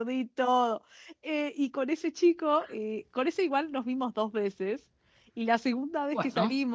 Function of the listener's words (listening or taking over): listening